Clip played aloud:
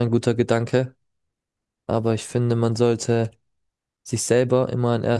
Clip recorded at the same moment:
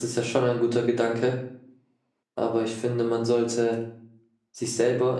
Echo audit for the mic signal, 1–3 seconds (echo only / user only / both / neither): echo only